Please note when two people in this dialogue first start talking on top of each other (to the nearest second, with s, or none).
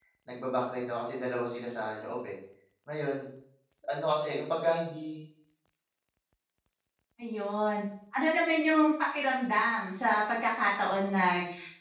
none